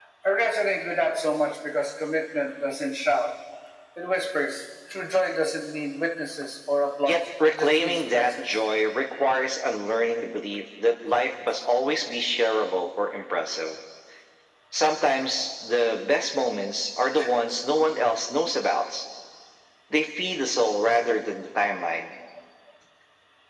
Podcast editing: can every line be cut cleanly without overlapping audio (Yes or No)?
No